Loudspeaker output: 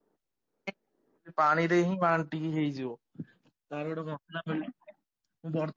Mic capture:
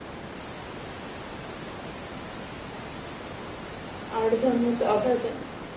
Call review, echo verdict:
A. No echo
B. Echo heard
A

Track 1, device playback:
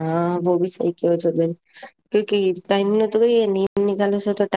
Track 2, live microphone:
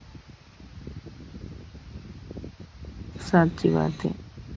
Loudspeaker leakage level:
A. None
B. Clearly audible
A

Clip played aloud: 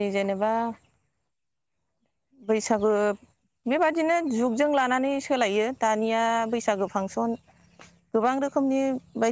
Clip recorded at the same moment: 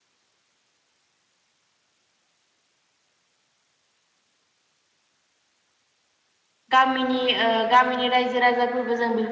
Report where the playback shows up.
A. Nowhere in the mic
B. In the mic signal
A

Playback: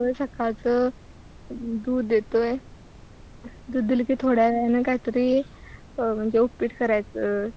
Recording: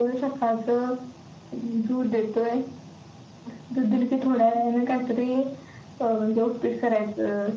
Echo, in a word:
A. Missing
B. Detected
B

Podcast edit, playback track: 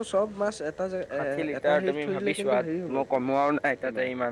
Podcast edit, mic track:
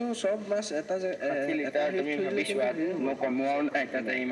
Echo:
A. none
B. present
B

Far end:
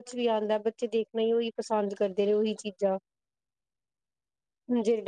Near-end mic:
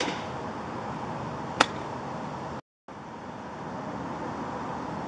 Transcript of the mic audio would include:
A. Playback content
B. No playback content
B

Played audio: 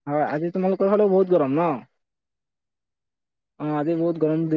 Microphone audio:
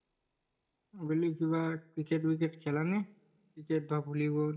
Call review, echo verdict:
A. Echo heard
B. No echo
B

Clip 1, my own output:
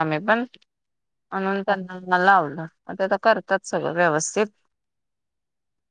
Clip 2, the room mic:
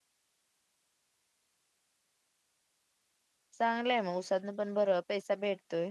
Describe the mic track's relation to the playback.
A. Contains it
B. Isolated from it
B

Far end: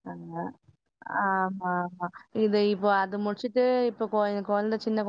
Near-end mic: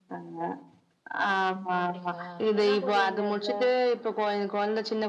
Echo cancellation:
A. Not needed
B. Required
B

